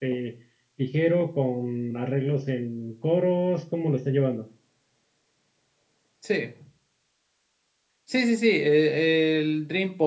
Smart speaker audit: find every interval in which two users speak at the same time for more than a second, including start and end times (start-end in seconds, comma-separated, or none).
none